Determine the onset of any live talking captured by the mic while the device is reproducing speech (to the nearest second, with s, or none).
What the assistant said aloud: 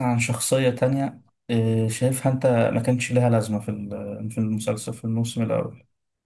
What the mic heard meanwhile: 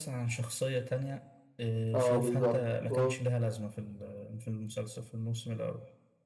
2 s